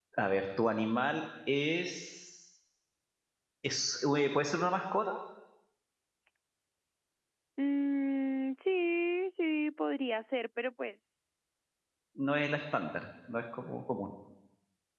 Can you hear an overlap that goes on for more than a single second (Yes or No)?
No